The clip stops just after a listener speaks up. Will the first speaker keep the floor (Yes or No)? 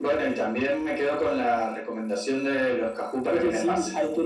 No